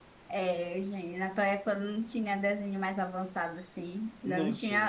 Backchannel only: Yes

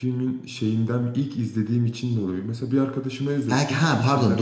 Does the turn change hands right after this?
Yes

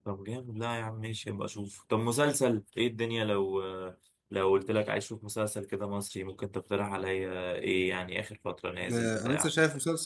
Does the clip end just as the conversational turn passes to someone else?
Yes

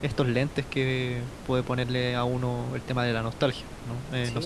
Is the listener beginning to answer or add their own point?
Yes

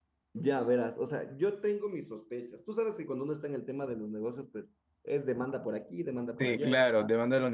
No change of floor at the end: No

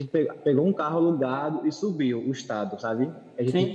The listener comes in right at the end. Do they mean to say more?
No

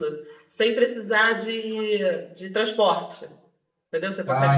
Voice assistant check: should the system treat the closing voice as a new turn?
No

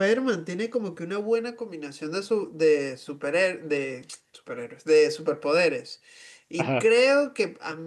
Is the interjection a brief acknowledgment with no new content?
Yes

